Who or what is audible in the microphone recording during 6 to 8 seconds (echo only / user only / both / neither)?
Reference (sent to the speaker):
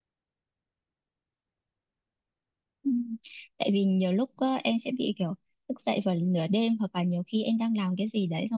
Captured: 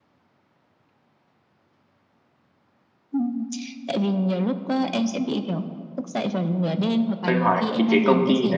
both